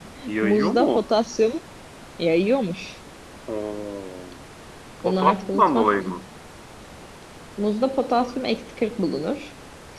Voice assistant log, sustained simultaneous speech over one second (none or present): present